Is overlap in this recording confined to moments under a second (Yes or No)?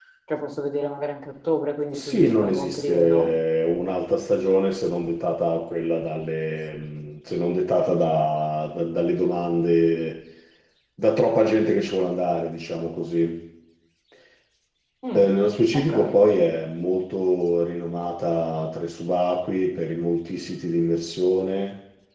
No